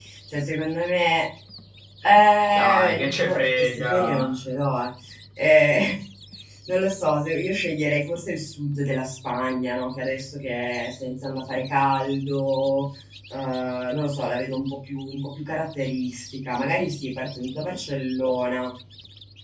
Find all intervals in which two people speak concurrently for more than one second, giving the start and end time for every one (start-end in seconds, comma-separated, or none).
2.5-4.3